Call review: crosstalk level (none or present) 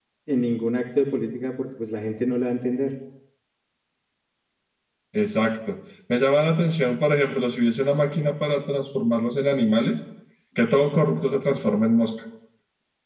none